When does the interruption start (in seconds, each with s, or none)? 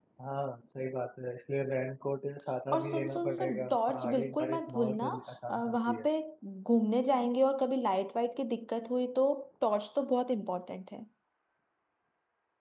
2.7 s